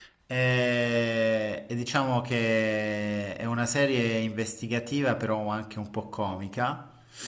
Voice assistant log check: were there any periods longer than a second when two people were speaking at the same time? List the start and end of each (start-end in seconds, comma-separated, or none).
none